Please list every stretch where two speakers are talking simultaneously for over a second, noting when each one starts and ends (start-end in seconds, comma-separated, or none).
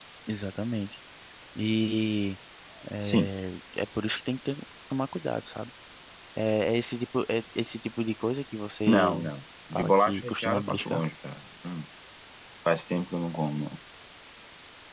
9.7-11.0